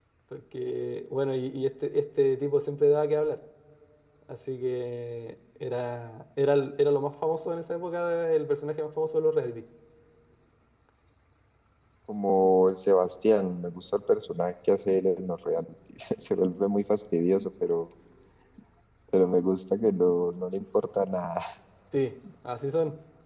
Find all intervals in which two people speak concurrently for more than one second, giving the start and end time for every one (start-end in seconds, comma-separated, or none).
none